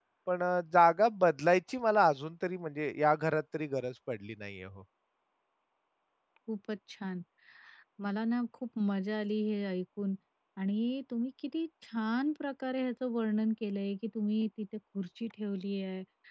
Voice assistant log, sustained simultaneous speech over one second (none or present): none